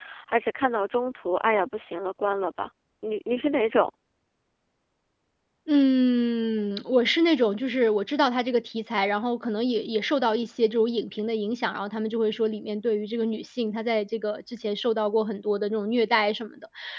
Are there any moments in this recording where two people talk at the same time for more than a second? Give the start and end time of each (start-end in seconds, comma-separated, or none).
none